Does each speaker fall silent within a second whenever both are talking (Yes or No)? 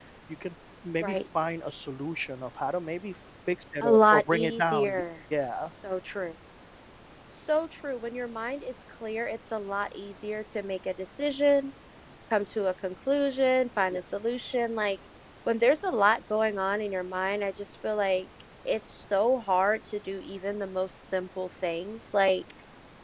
No